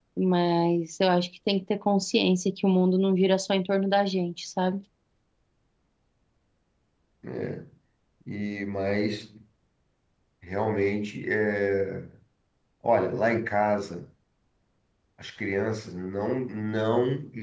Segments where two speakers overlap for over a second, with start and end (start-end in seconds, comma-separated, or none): none